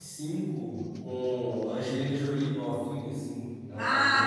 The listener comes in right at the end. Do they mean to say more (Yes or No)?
Yes